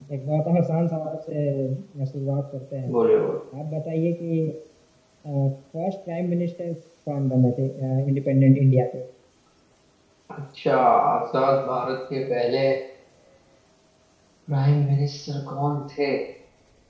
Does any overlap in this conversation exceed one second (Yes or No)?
No